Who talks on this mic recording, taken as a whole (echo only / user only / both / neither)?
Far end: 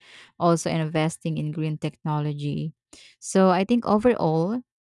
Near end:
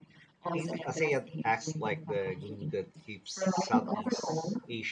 both